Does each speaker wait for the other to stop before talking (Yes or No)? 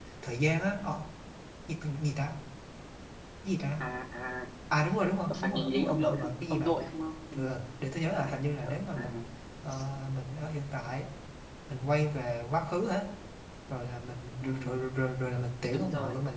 No